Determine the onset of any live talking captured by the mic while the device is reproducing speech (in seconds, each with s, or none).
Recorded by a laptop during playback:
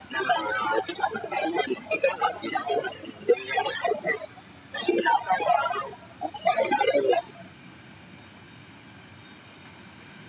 none